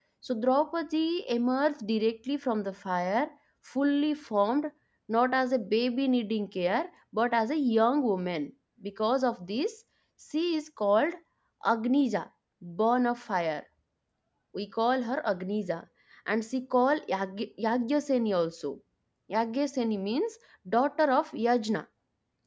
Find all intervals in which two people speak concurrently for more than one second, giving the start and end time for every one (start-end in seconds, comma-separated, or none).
none